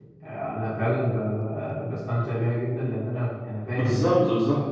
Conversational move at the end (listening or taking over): taking over